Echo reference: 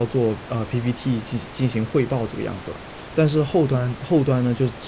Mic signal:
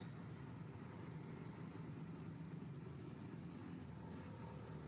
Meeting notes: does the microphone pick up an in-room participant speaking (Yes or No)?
No